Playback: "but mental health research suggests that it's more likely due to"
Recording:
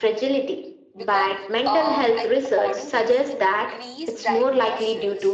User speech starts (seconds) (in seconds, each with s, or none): 0.9 s